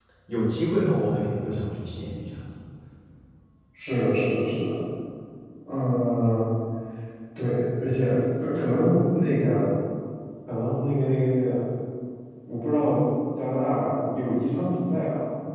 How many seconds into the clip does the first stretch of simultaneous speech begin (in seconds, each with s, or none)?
none